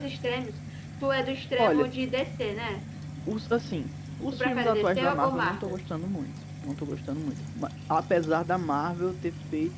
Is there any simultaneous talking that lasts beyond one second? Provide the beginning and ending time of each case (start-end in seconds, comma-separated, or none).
4.3-5.8